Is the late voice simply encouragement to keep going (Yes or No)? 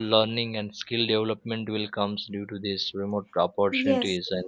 Yes